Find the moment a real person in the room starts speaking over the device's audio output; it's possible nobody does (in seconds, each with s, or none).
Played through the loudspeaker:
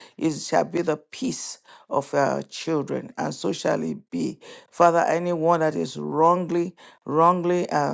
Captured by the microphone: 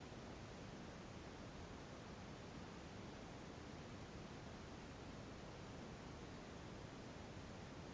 none